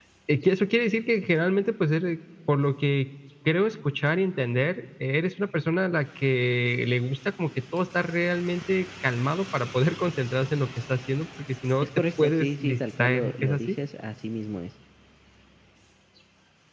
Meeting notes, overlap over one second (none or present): present